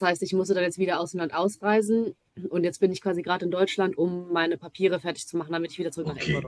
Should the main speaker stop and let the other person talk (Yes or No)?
Yes